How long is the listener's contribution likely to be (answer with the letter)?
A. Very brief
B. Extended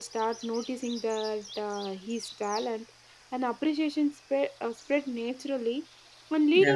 A